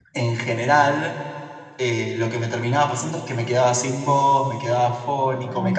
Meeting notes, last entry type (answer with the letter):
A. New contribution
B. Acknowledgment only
B